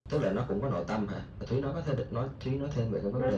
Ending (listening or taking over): taking over